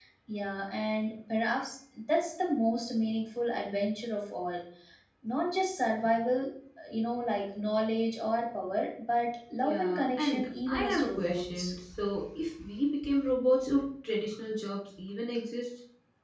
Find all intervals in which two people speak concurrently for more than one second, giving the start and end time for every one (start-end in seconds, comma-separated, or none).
9.6-11.7